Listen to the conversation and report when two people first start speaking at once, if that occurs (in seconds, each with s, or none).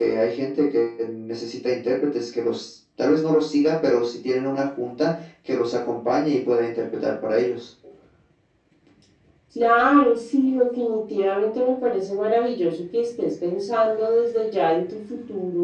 none